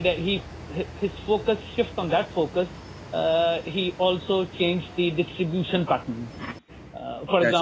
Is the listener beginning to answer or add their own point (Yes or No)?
No